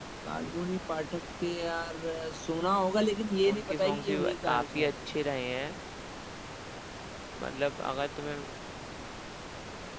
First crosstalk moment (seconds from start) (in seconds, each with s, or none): 3.4 s